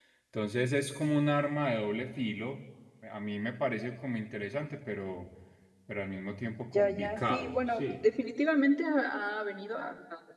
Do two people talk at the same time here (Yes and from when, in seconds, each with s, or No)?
Yes, from 6.7 s